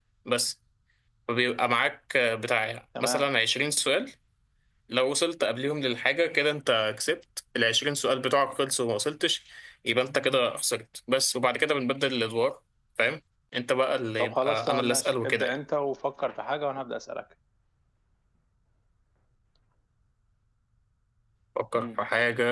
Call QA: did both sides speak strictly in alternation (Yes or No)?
No